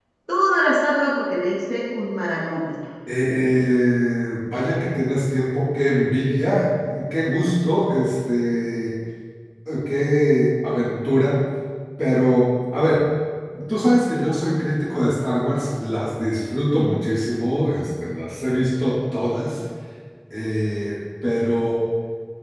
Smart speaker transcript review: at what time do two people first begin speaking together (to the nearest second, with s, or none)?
none